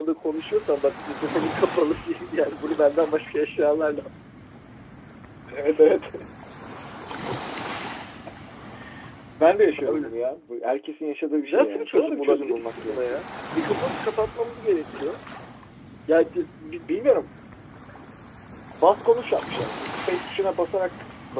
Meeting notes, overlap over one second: present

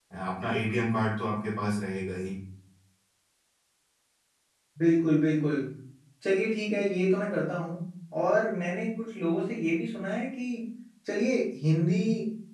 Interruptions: none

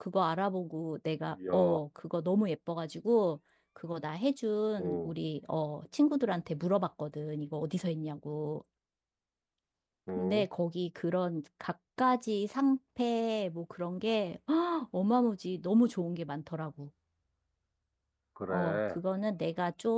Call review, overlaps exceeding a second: none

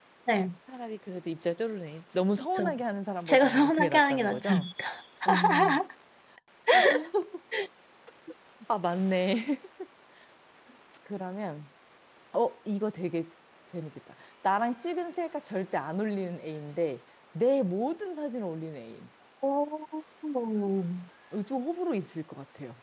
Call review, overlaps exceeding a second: present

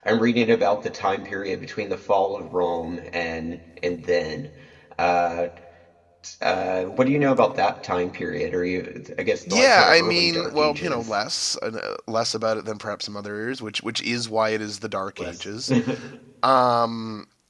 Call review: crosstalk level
present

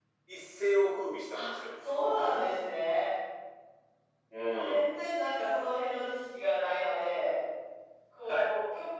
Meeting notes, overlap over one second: none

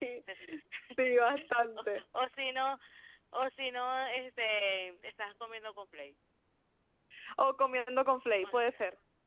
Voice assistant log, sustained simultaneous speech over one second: none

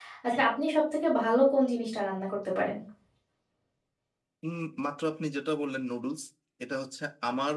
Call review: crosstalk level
none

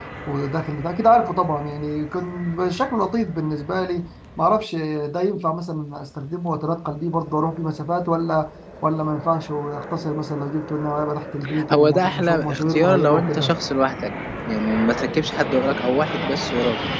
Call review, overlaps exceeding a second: present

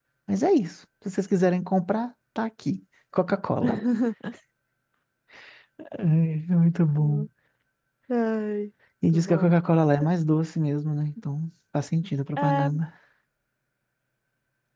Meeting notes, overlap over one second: none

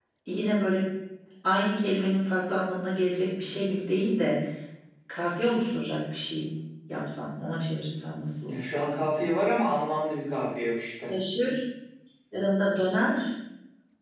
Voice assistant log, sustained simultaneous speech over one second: none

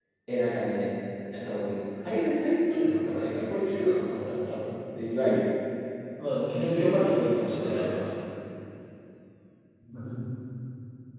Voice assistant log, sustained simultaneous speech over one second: present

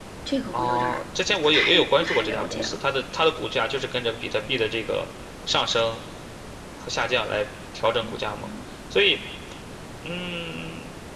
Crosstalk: present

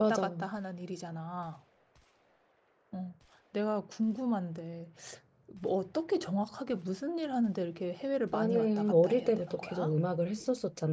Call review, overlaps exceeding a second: present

